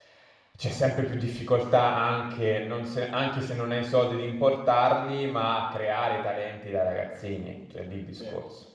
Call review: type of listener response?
taking over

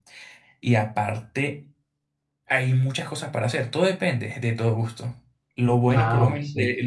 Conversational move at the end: listening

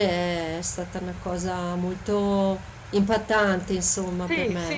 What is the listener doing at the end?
taking over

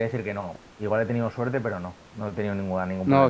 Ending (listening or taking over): taking over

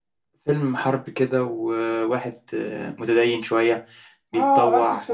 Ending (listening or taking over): taking over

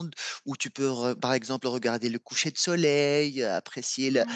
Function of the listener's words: listening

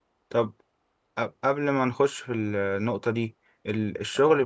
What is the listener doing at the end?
listening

